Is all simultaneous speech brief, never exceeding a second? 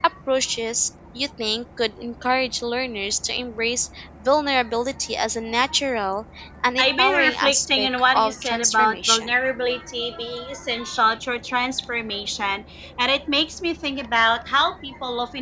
No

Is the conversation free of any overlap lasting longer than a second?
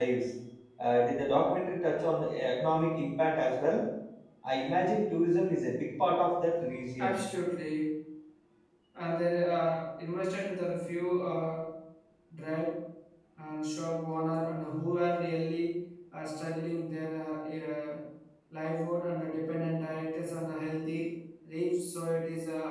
Yes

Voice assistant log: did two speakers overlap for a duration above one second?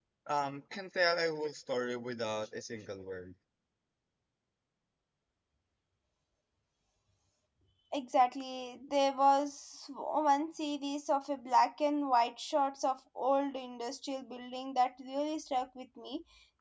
No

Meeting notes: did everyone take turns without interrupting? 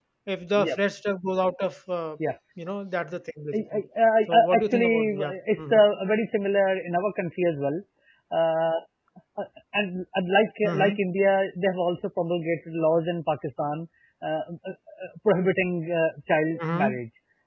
No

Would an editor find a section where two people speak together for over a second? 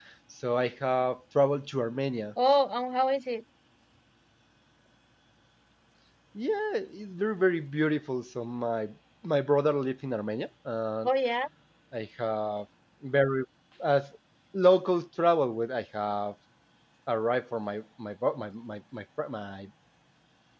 No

